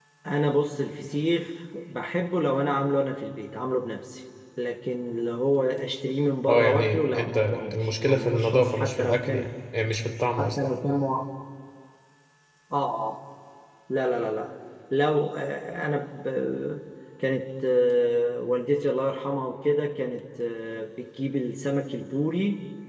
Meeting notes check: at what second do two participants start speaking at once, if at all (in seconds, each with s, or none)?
6.5 s